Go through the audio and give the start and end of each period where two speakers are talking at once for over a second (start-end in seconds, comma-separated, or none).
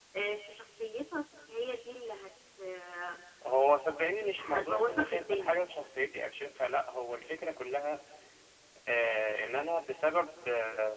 4.4-5.7